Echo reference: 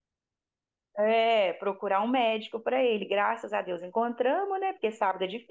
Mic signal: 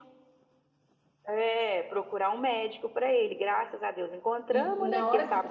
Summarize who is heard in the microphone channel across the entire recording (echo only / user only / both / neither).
both